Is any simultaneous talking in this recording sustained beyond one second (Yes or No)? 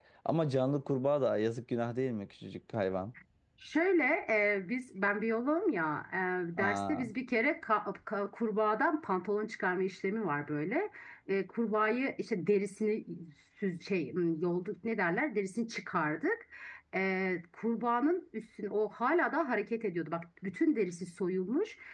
No